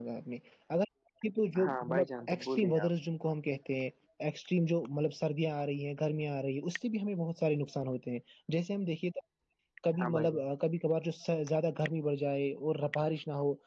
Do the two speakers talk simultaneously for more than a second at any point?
Yes, from 1.7 s

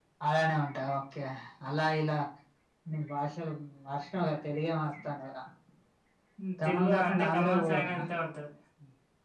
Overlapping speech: Yes, from 6.6 s

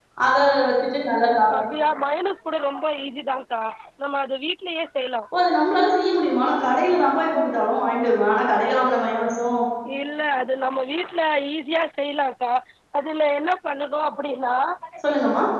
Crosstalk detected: No

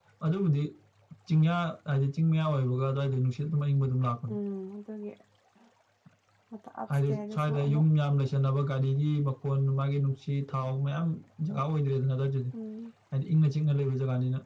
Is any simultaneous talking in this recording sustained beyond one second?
Yes, from 6.9 s

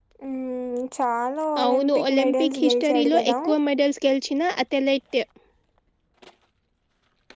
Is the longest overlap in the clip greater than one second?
Yes, from 1.6 s

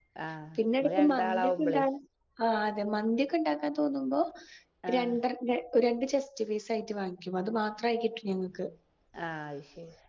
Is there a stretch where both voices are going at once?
Yes, from 0.6 s

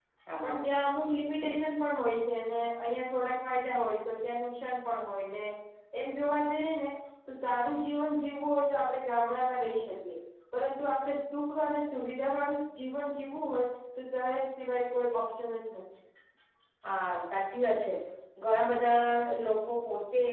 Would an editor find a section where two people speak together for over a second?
No

